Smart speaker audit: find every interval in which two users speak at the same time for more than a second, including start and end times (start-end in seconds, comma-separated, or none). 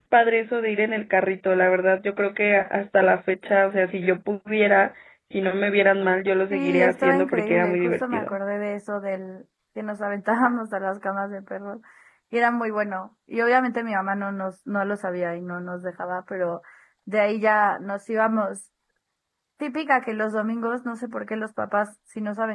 6.5-8.3